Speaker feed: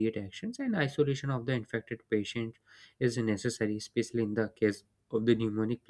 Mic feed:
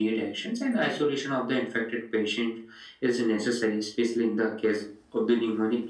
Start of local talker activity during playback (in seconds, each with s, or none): none